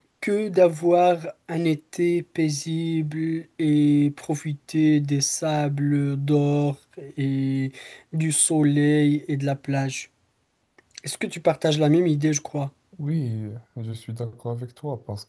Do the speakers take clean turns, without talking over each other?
Yes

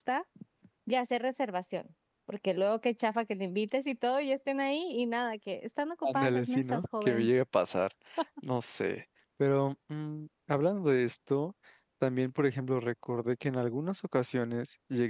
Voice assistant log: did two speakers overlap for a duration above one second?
Yes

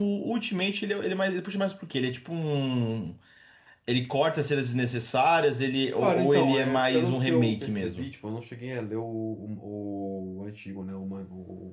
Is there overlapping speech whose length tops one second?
Yes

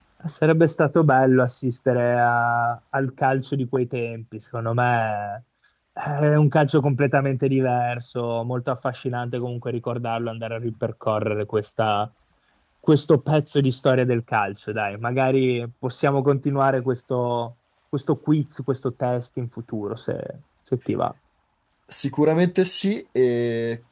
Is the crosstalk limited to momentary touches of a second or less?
Yes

